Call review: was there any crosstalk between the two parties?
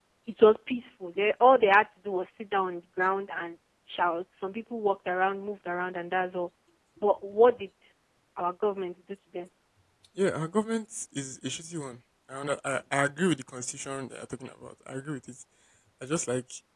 No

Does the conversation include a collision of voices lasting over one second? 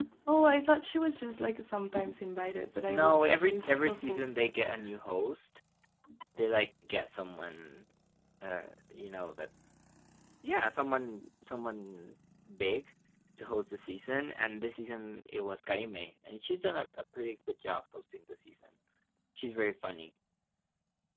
Yes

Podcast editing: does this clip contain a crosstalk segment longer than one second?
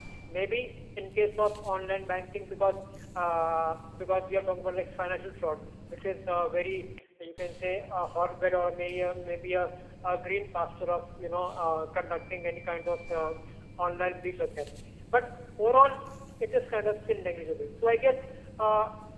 No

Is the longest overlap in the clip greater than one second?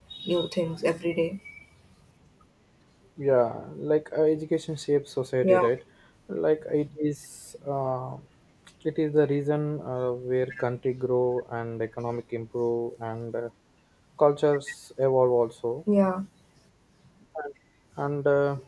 No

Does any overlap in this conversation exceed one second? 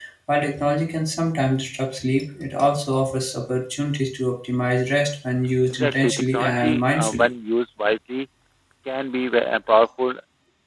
Yes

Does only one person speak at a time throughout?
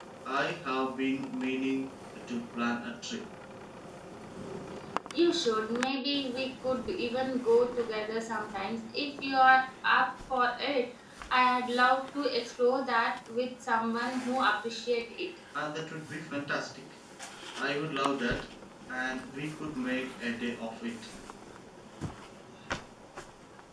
Yes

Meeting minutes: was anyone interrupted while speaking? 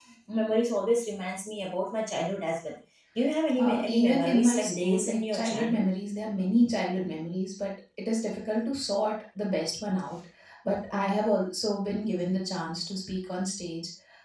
Yes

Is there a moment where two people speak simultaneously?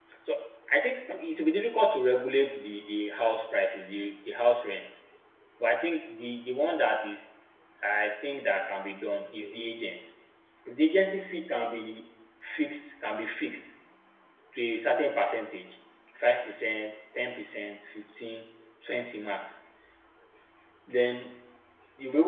No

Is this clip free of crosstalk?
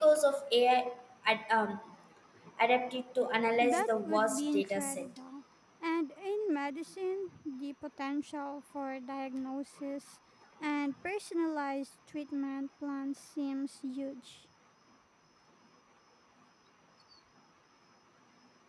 No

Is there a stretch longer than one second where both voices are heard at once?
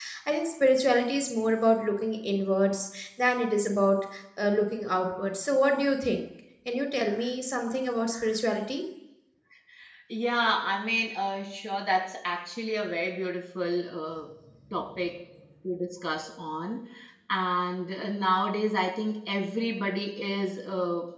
No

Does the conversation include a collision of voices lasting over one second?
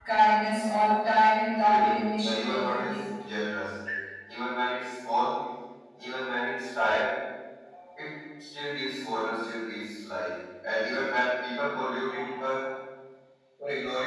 Yes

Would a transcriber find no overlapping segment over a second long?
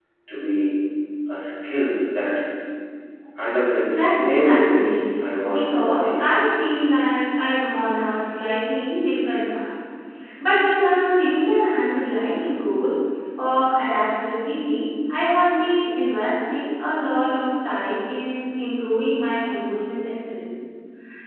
No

